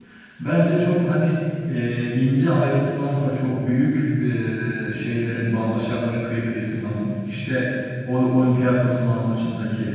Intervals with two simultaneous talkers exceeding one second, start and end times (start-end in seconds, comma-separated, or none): none